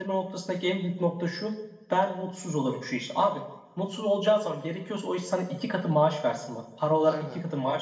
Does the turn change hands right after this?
No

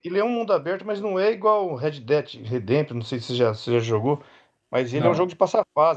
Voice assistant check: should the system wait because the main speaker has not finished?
Yes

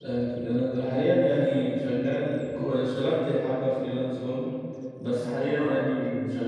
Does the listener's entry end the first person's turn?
No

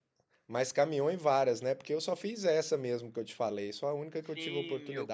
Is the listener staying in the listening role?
No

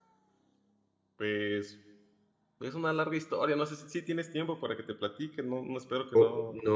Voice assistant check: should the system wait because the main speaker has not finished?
No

